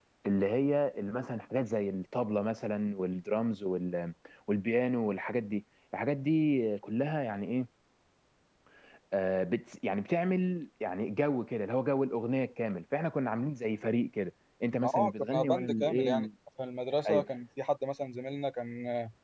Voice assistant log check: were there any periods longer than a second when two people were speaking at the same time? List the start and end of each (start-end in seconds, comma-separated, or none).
14.7-16.3